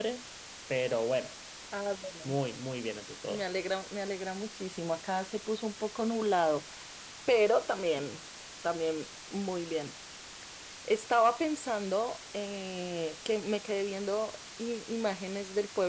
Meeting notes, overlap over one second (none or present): none